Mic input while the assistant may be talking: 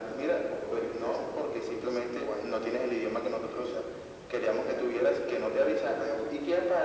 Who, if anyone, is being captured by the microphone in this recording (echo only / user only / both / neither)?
echo only